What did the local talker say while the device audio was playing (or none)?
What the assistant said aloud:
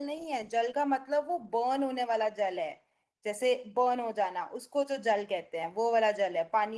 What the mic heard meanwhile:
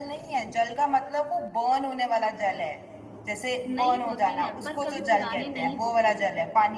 नई होती है पर कभी पुरानी नहीं होती